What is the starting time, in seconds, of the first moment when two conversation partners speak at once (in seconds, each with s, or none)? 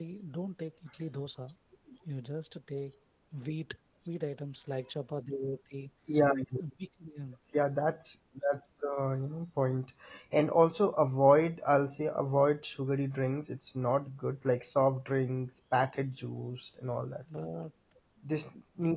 none